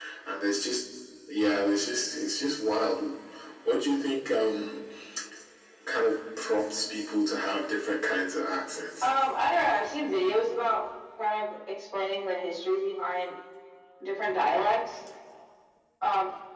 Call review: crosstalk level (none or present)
none